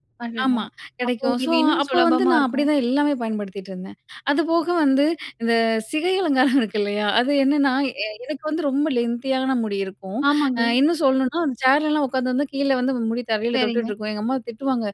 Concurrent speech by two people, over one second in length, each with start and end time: 1.2-2.7

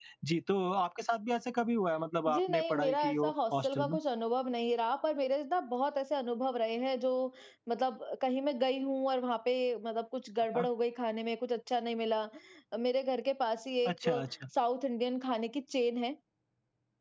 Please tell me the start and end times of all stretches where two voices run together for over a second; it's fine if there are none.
2.3-4.0

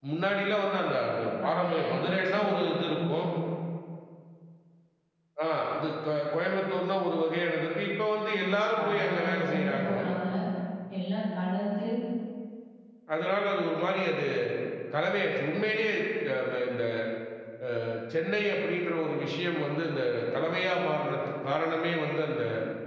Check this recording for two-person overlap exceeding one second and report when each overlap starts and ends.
1.4-3.2, 8.4-9.9

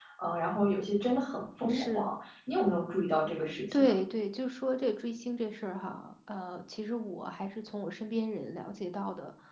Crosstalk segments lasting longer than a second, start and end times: none

